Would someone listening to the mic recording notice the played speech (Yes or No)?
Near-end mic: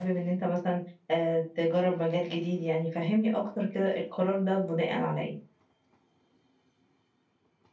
No